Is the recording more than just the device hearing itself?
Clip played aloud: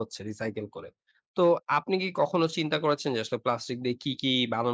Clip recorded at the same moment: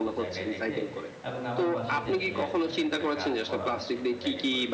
Yes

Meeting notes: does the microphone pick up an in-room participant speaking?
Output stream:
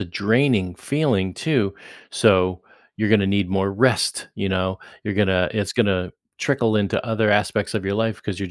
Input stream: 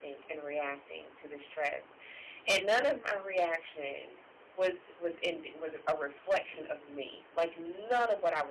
Yes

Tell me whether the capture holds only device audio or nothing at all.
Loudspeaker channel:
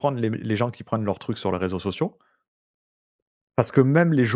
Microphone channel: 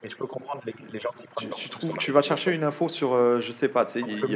No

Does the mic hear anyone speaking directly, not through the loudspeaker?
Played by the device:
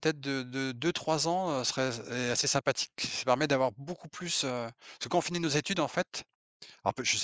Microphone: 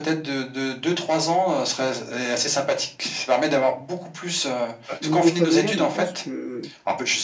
Yes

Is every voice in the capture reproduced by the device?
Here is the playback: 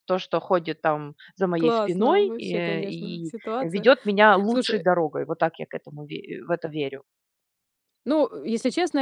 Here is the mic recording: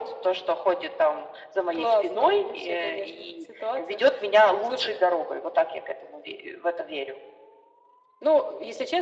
Yes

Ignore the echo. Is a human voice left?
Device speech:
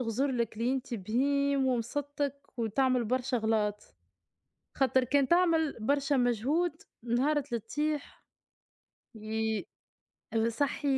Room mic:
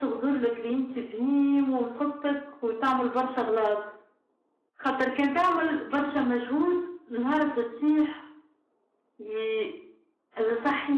No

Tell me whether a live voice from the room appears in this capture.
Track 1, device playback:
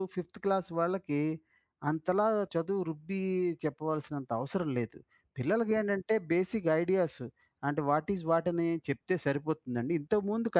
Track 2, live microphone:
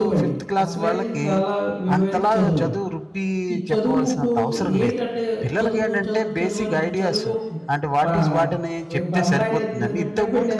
Yes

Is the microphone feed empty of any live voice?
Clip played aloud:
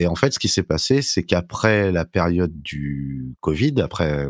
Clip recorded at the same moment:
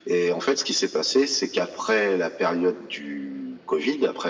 Yes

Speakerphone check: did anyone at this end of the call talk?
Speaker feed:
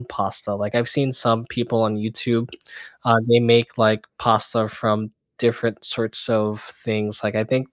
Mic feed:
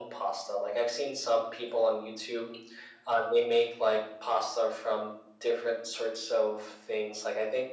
No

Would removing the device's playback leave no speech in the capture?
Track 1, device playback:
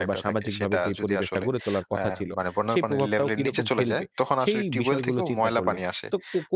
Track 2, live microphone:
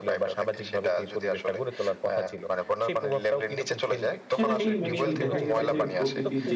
No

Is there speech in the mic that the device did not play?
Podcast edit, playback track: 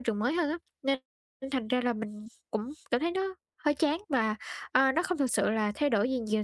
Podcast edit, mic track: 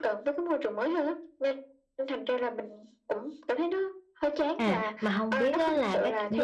Yes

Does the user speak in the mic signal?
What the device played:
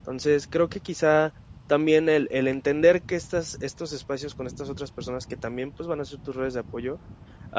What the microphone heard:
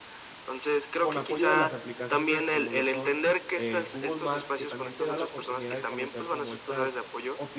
Yes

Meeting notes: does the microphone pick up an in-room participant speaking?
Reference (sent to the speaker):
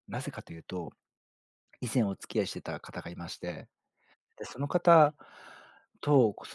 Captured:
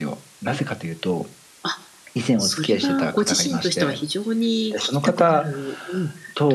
Yes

